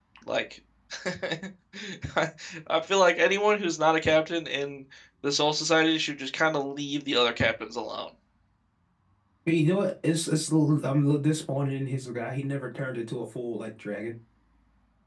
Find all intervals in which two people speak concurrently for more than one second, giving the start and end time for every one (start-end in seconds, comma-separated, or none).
none